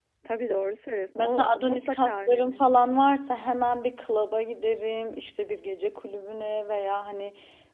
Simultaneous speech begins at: 1.2 s

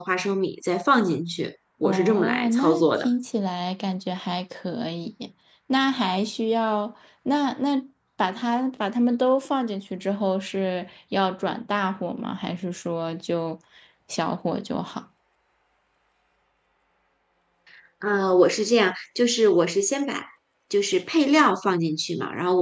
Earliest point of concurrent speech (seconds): 1.8 s

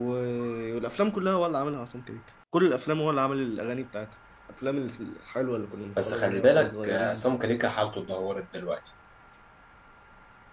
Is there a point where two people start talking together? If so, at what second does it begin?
6.0 s

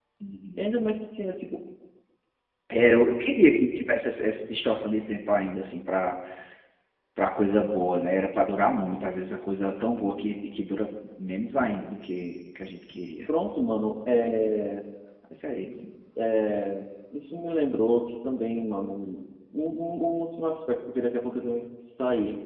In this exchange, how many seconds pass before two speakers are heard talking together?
none

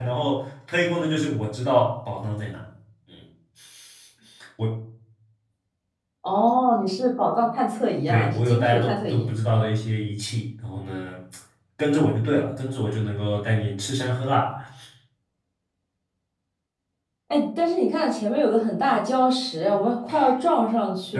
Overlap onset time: 8.1 s

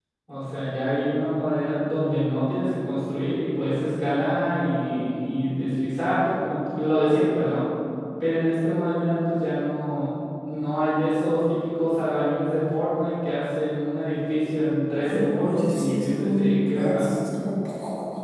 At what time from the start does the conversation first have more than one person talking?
15.0 s

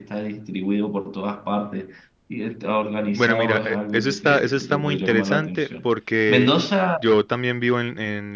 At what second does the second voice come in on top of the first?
3.0 s

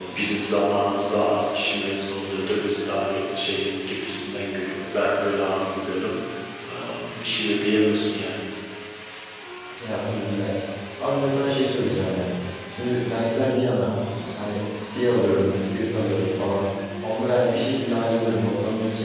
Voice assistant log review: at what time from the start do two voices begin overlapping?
none

